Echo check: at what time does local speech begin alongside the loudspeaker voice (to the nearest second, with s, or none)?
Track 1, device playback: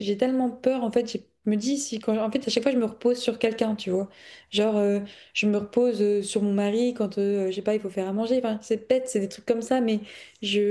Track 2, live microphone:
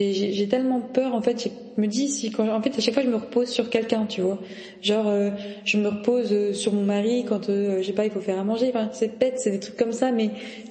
none